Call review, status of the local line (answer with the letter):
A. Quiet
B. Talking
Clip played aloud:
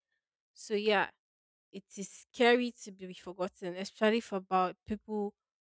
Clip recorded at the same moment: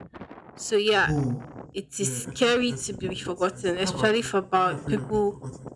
B